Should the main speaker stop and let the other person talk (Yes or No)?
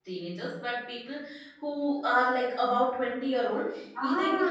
No